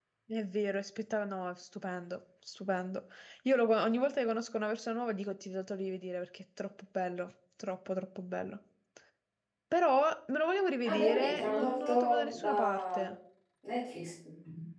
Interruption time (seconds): 11 s

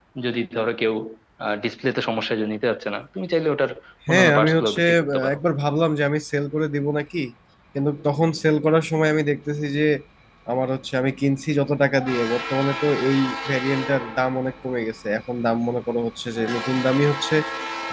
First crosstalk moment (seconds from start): 4 s

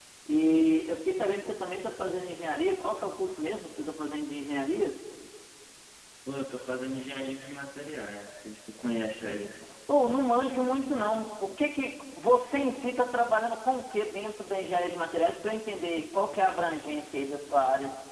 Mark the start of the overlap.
none

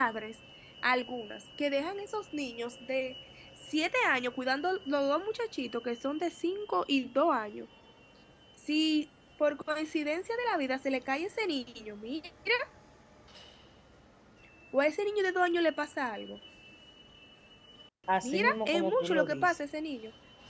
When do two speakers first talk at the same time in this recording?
18 s

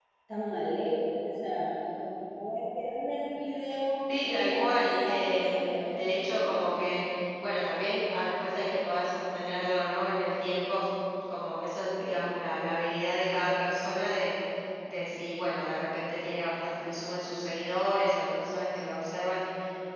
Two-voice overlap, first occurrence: 4 s

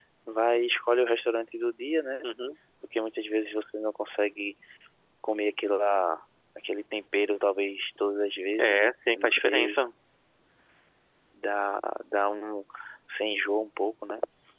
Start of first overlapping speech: 9 s

